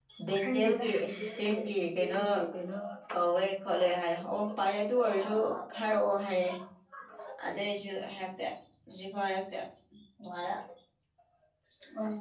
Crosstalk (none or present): present